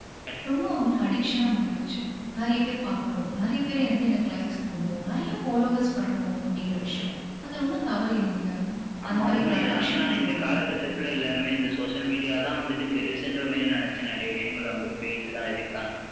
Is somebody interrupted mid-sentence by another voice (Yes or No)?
Yes